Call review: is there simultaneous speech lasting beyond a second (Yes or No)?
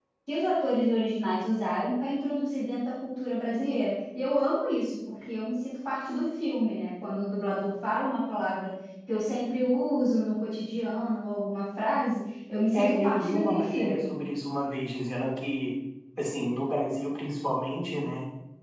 Yes